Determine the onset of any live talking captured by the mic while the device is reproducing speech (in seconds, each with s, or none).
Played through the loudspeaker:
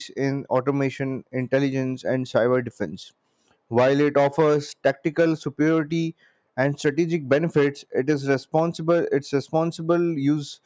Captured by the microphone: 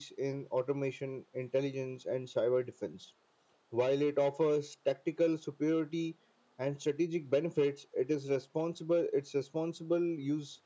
none